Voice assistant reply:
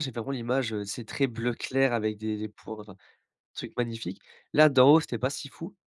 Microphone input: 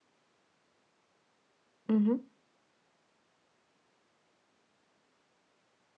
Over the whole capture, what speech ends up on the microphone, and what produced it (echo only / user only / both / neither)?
user only